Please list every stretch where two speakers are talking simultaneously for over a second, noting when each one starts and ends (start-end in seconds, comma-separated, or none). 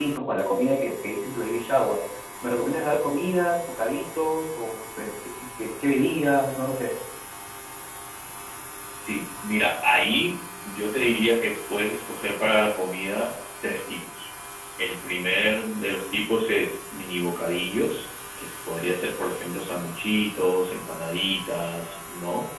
none